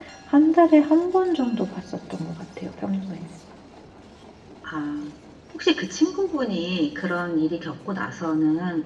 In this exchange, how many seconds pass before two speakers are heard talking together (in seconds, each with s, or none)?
none